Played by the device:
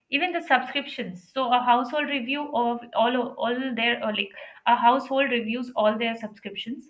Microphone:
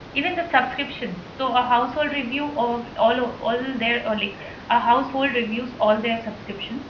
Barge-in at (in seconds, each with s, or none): none